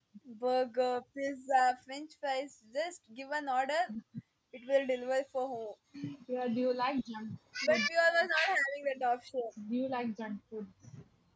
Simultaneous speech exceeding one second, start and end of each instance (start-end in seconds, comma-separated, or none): none